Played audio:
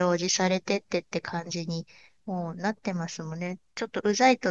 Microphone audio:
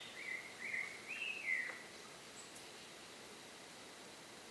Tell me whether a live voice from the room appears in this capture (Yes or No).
No